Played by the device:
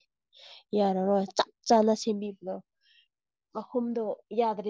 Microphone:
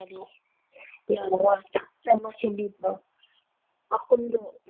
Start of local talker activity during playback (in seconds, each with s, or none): none